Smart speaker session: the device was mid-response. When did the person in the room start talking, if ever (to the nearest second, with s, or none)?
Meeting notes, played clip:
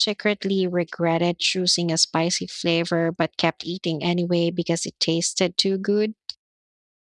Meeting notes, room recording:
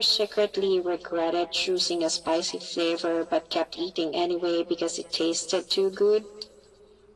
none